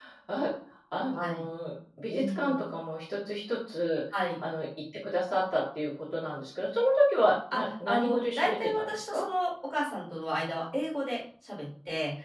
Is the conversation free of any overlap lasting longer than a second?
No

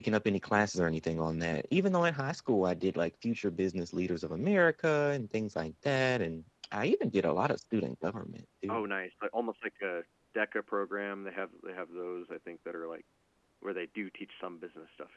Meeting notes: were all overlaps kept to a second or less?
Yes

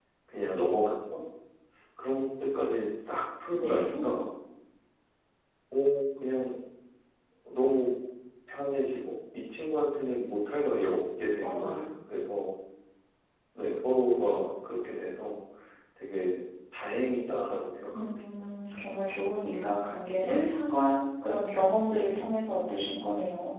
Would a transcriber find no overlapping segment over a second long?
Yes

